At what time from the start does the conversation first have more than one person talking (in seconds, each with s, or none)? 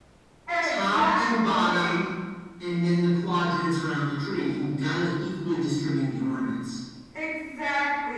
0.7 s